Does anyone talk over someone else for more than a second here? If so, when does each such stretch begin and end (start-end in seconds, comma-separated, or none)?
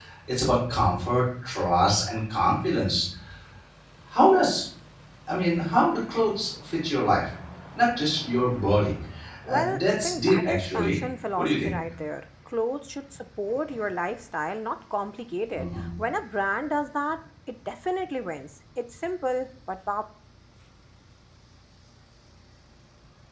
9.5-11.0